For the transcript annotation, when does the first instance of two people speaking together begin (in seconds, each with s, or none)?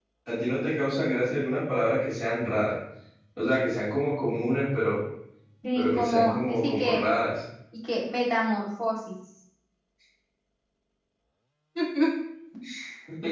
5.8 s